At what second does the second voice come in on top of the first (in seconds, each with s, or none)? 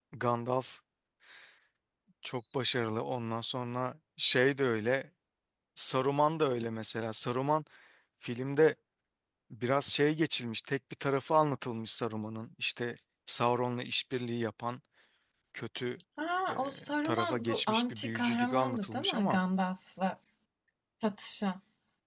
16.5 s